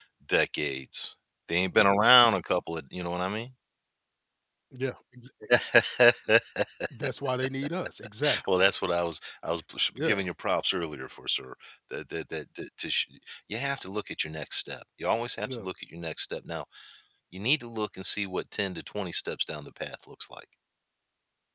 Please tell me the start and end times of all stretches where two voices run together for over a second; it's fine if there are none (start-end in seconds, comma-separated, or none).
none